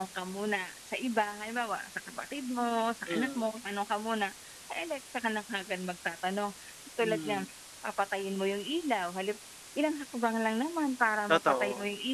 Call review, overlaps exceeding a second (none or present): none